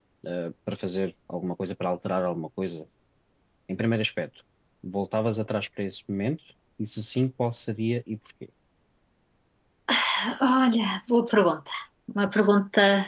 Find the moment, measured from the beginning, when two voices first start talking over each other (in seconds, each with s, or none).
none